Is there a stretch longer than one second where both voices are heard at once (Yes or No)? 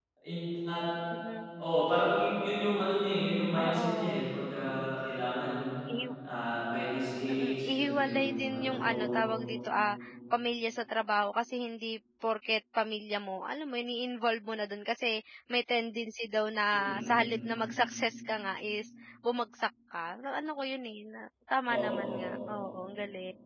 Yes